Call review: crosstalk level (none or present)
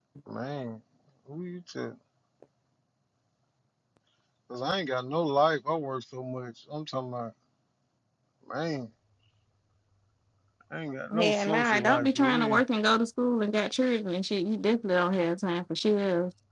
present